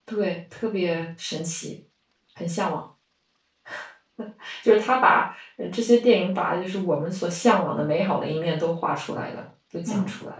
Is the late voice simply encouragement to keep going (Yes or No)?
No